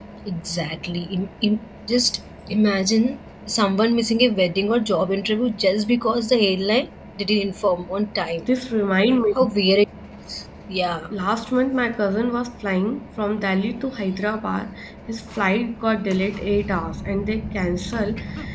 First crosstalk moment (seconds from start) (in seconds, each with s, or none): none